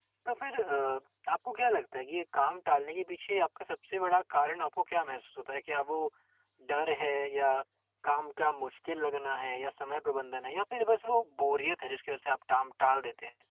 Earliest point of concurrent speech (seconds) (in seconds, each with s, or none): none